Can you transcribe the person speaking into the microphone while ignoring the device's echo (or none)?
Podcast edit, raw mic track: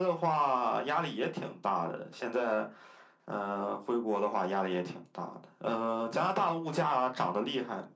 none